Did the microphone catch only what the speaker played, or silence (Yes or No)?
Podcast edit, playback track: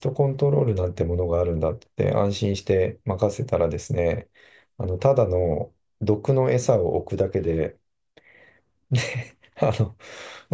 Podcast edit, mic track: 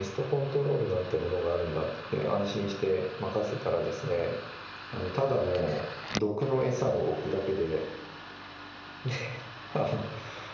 Yes